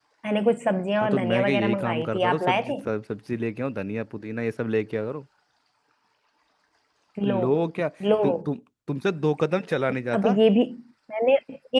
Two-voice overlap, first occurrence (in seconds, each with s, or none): 1.0 s